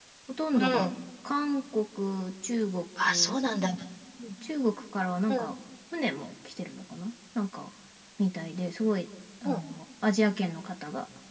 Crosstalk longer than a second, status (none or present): none